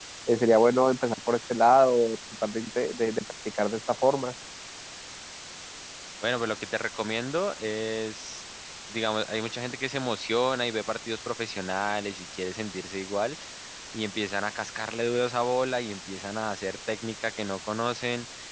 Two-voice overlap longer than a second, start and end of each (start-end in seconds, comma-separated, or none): none